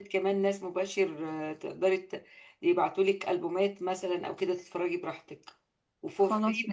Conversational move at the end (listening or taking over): listening